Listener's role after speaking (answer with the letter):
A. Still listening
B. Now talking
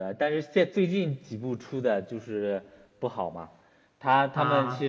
A